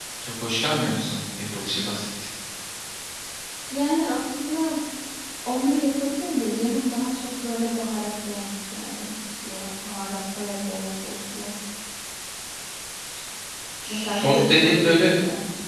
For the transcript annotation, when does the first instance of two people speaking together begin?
13.8 s

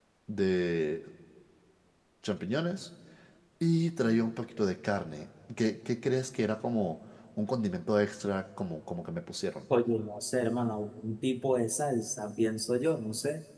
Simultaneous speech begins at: none

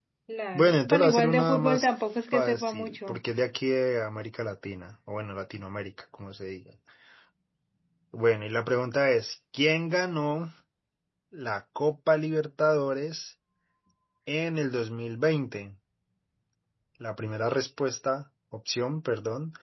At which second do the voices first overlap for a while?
0.5 s

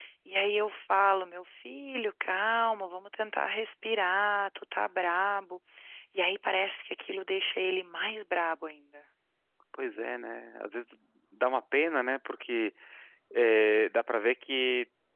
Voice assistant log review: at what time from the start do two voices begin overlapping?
none

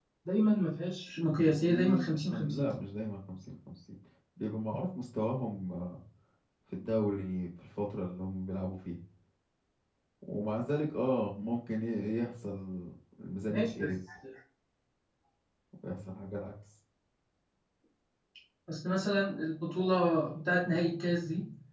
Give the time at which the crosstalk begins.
1.4 s

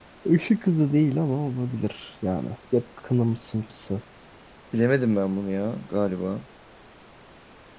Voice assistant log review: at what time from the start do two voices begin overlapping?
none

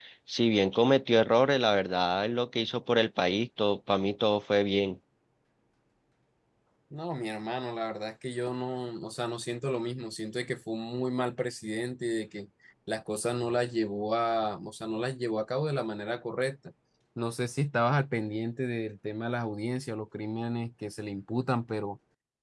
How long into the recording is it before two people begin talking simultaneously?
none

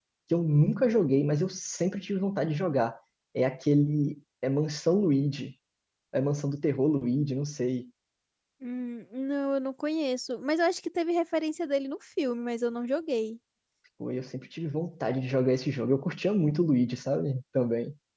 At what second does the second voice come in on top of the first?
none

